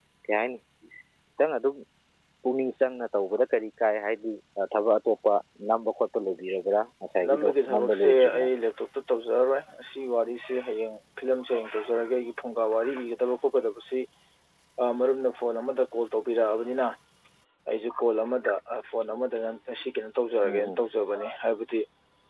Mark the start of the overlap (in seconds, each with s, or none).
7.3 s